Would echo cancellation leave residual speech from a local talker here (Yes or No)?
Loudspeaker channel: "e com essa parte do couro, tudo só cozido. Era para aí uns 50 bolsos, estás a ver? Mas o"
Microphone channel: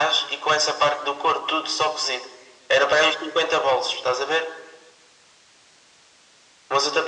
No